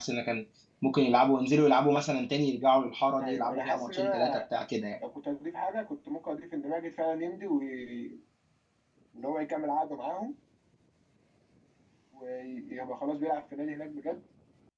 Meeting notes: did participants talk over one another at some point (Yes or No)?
Yes